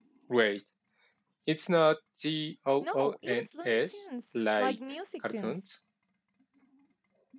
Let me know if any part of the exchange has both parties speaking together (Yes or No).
Yes